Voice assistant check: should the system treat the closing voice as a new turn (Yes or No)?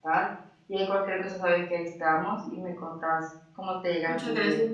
Yes